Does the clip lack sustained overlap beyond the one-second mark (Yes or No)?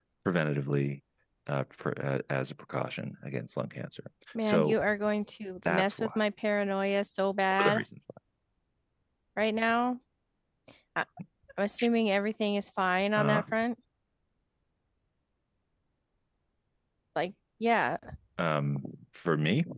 Yes